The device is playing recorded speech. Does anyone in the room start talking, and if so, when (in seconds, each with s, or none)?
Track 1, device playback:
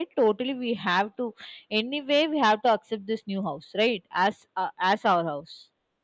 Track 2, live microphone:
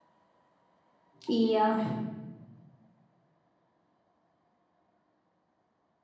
1.3 s